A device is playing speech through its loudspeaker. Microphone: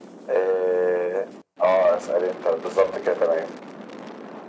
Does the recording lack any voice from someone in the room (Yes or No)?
Yes